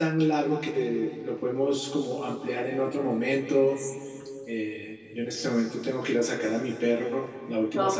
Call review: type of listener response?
taking over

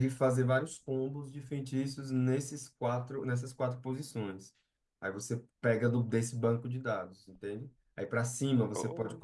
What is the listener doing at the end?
listening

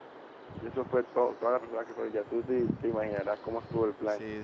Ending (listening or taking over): taking over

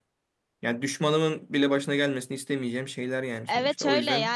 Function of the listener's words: taking over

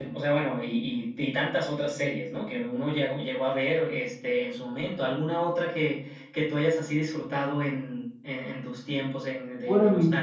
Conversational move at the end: taking over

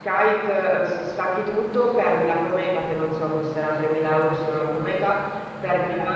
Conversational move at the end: listening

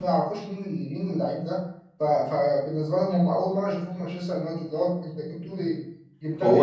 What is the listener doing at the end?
listening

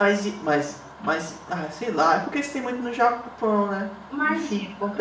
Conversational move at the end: taking over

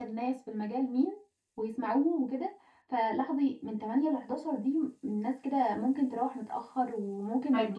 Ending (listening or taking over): taking over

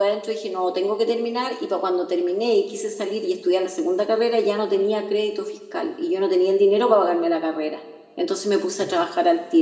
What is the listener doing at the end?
listening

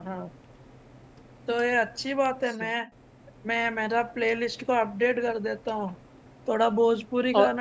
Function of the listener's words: taking over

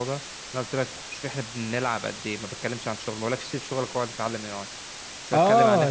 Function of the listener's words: taking over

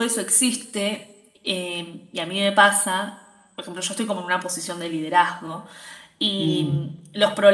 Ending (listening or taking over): listening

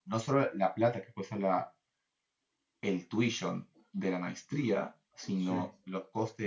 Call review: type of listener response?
listening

